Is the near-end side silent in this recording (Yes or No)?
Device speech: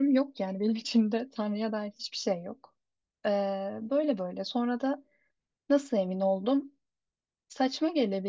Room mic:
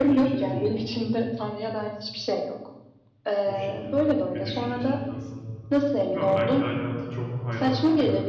No